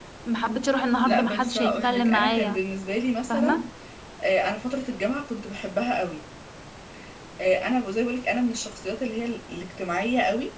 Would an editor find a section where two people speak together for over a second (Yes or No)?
Yes